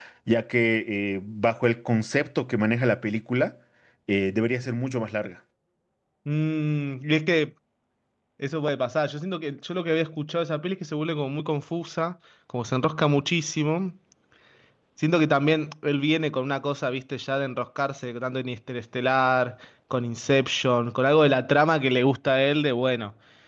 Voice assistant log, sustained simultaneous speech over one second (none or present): none